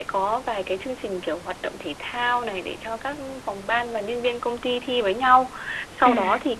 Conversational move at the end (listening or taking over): listening